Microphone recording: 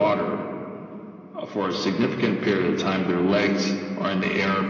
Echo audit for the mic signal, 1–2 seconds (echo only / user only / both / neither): echo only